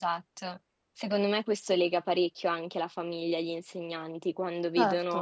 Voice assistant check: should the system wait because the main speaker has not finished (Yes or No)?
Yes